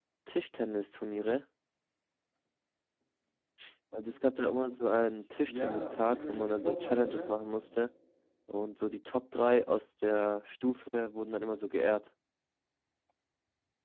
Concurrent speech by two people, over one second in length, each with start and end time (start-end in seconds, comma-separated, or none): 5.3-7.3